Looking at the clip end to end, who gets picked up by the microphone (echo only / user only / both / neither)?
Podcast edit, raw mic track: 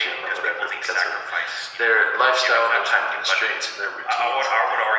echo only